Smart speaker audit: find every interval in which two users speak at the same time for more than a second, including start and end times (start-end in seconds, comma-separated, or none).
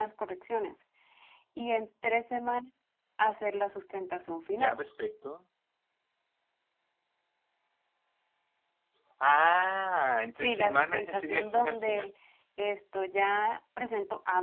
10.4-12.1